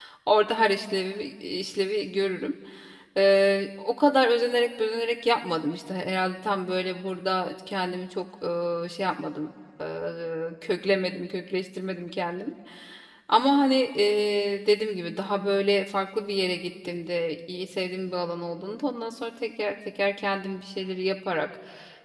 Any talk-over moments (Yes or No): No